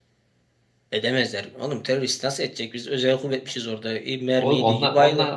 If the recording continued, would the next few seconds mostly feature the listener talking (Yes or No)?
Yes